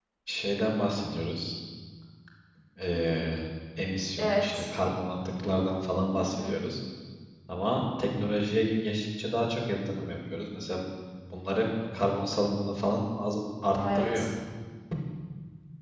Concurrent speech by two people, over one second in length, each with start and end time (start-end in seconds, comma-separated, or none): none